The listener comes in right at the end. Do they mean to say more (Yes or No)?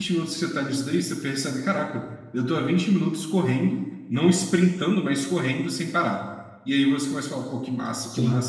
No